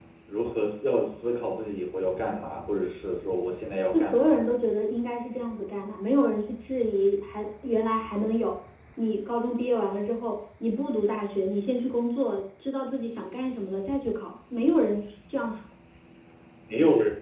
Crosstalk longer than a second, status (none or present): none